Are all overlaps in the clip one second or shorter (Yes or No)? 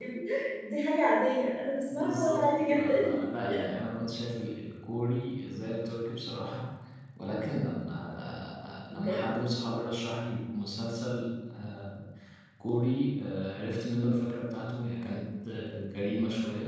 No